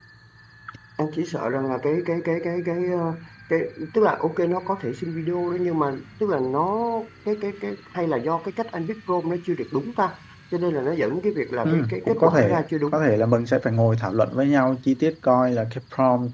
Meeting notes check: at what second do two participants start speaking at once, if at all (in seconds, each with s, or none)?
11.6 s